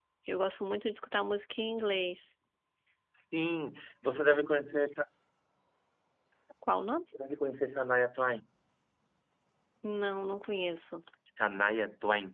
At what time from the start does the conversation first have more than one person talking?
none

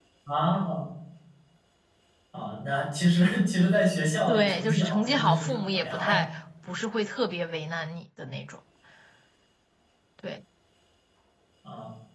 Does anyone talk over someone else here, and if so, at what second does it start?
4 s

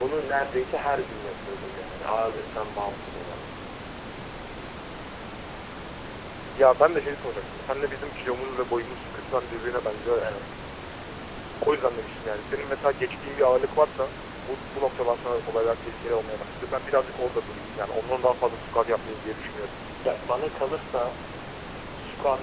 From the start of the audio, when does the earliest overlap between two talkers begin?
none

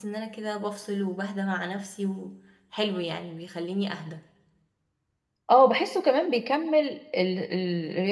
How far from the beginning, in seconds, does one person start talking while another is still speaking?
none

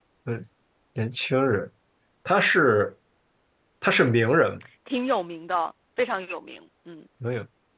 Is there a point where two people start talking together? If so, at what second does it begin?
none

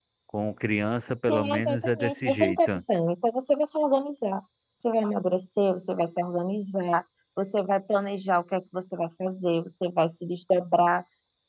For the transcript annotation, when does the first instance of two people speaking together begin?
1 s

